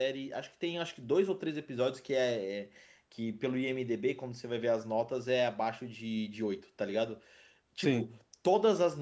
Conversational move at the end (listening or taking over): listening